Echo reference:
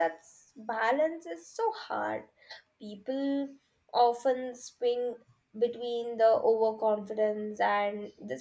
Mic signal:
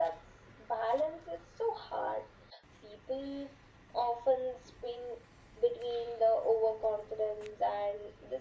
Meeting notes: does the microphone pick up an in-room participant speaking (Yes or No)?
No